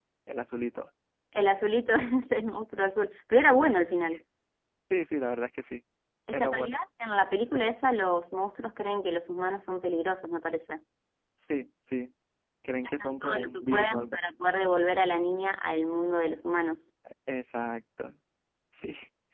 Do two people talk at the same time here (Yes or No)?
Yes